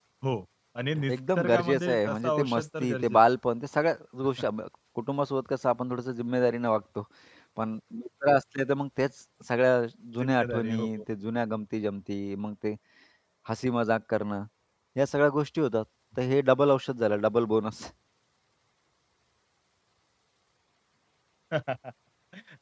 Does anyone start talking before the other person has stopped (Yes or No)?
Yes